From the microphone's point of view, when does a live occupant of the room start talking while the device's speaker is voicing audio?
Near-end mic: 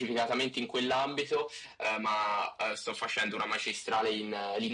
none

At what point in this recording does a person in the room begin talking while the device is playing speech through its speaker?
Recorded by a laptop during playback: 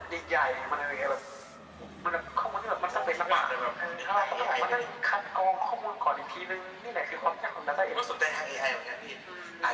none

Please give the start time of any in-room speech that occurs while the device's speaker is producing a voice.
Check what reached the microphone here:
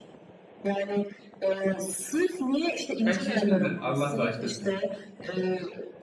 3.0 s

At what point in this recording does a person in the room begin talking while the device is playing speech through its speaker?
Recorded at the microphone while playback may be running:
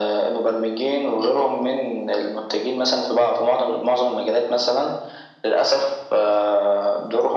none

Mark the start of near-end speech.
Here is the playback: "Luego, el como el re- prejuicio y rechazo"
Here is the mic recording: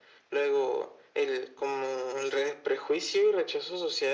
none

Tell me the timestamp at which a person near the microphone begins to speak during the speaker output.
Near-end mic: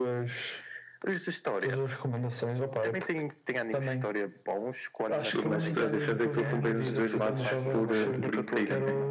5.4 s

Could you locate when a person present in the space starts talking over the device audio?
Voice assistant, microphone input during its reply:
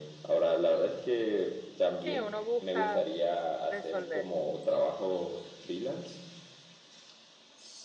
2.0 s

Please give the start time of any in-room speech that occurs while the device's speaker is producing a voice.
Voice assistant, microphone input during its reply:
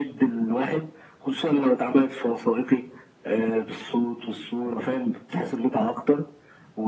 none

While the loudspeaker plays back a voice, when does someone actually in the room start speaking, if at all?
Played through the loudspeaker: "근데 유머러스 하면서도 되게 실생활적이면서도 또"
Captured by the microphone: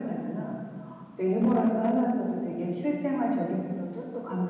none

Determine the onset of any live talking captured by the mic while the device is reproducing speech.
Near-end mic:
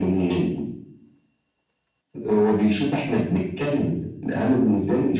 none

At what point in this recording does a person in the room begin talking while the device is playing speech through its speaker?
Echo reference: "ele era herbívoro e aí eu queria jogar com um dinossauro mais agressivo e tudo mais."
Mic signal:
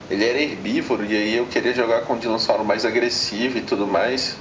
none

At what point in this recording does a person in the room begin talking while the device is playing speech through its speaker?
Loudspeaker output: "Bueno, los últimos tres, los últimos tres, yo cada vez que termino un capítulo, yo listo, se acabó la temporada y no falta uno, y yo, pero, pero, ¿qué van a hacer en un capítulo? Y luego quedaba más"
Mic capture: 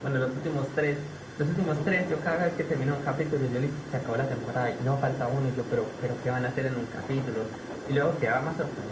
none

